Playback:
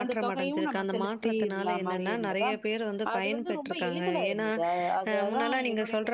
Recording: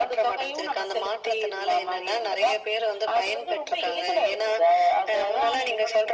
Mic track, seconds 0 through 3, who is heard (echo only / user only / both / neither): echo only